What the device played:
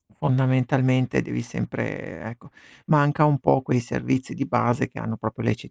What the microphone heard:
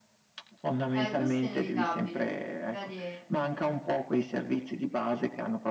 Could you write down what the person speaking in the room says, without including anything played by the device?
Eh, questo è inevitabile, mhmm, vedi è eh.

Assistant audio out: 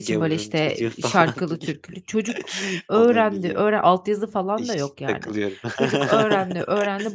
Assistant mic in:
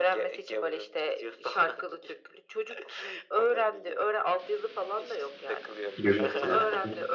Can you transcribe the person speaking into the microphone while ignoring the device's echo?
Görüyorsun, yani. Hı hı.

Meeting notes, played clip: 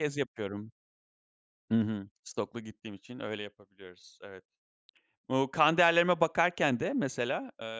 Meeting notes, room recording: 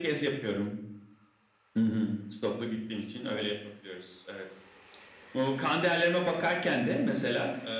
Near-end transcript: none

